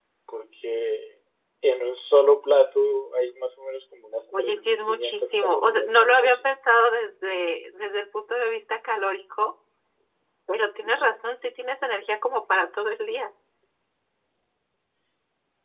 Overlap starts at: 4 s

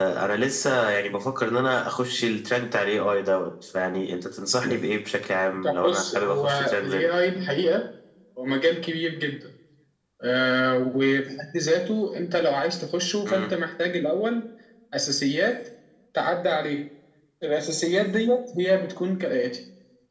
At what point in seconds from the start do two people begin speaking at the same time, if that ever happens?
6 s

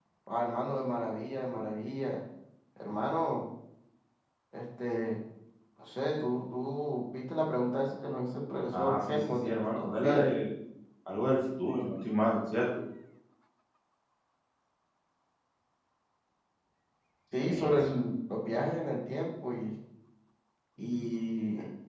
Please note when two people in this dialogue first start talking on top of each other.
9 s

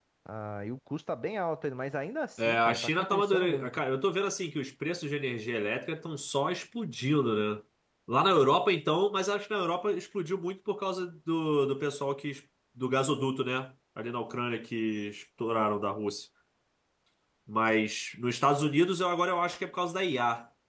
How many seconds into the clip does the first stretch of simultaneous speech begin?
2 s

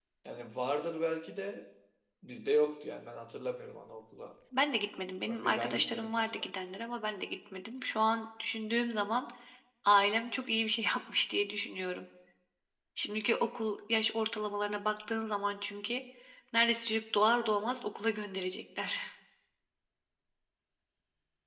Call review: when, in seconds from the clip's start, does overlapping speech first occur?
5 s

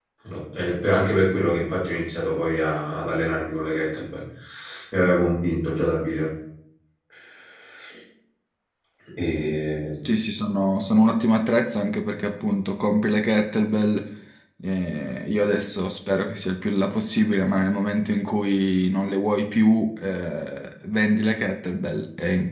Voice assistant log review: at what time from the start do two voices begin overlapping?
none

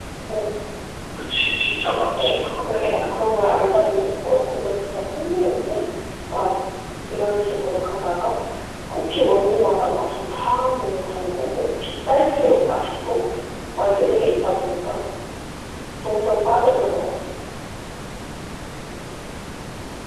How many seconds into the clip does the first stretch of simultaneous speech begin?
2 s

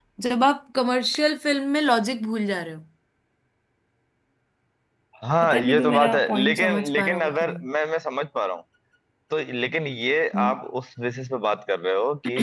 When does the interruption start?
5 s

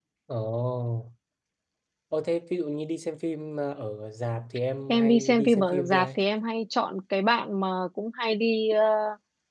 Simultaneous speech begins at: 5 s

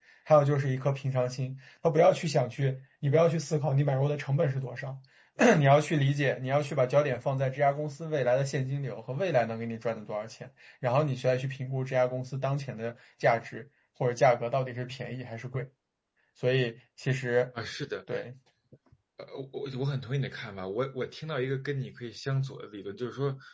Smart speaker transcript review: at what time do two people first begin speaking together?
none

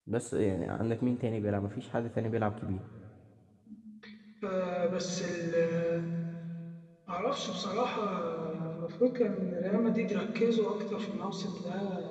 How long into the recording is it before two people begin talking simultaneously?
none

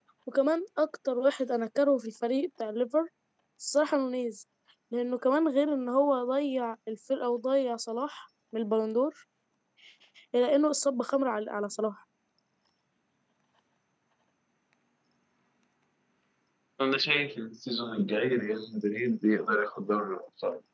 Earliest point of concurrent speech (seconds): none

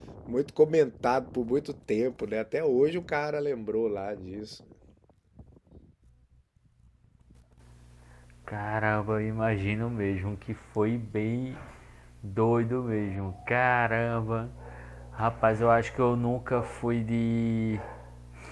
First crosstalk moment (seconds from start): none

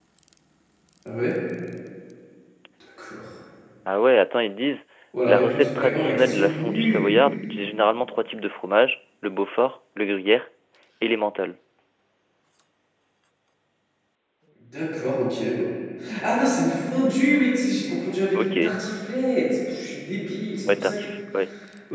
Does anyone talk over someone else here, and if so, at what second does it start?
5 s

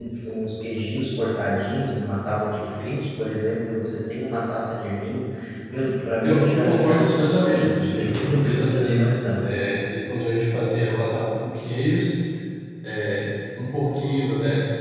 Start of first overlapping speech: 6 s

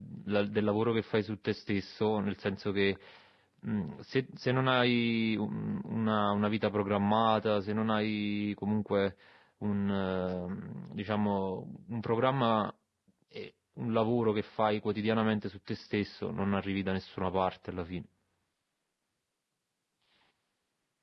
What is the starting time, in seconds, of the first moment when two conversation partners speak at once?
none

